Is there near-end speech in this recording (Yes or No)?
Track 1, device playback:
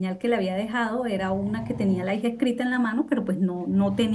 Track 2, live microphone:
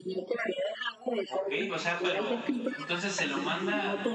Yes